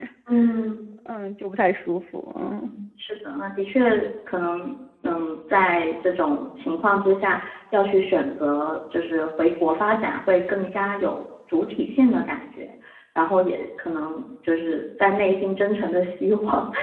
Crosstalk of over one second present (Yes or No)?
No